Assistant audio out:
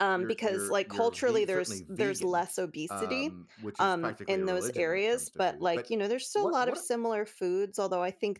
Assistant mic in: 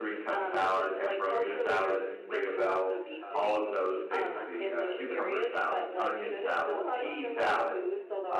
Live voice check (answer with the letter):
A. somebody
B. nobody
A